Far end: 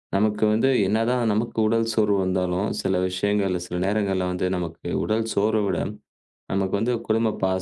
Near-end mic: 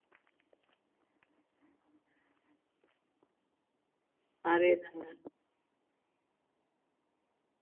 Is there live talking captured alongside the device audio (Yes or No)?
Yes